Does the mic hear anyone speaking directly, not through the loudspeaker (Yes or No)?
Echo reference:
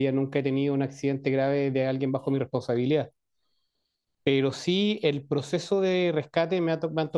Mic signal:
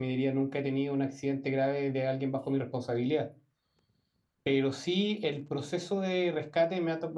No